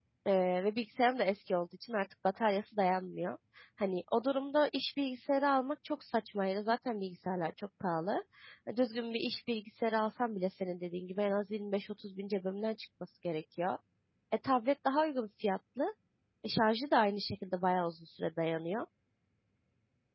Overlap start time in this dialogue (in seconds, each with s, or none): none